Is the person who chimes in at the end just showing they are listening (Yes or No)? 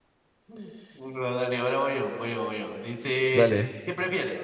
Yes